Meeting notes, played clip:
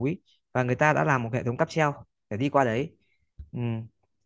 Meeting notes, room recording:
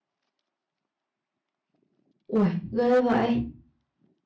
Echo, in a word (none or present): none